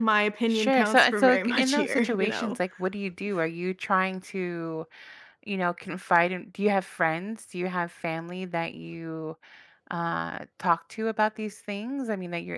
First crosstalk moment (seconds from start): 0.5 s

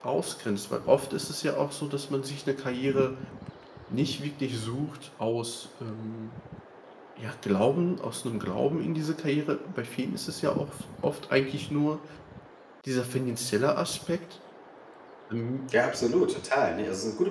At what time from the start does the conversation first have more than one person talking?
none

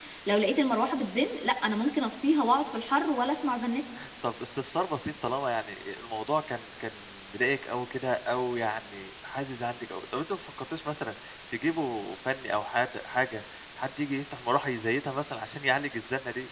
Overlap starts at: none

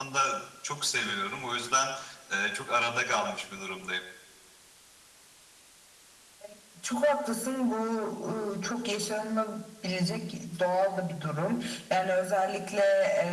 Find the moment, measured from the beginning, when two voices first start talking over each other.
none

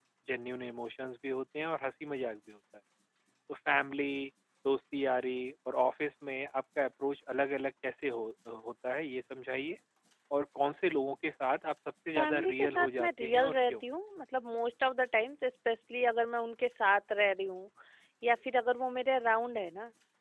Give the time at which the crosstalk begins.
12.2 s

